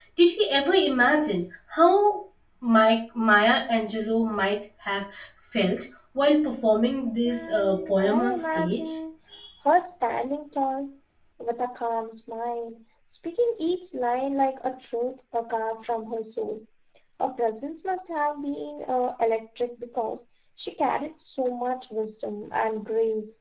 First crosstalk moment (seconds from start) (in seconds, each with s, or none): 7.2 s